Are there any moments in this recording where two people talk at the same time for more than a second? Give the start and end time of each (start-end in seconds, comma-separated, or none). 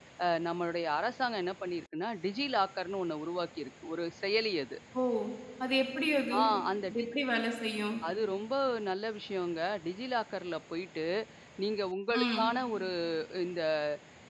none